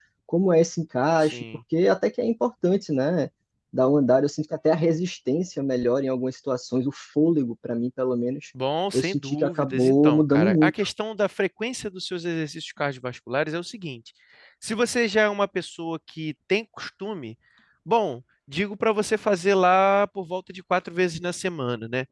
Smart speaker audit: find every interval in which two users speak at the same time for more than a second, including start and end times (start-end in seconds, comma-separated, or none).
8.9-10.7